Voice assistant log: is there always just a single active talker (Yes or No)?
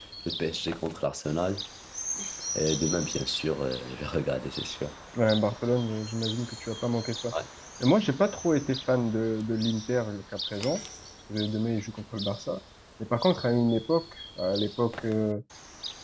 Yes